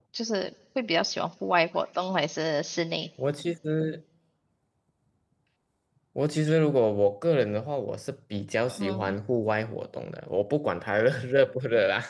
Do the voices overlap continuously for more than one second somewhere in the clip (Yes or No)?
No